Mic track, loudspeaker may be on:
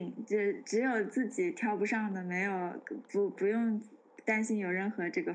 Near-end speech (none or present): none